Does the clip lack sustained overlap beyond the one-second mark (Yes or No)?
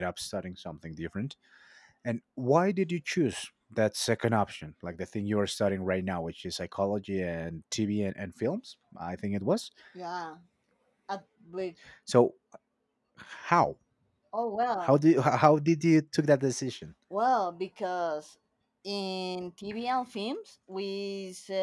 Yes